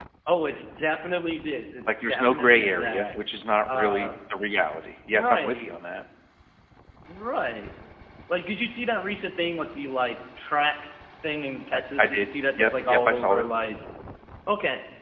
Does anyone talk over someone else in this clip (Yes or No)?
Yes